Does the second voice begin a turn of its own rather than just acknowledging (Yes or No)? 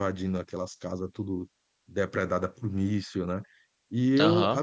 No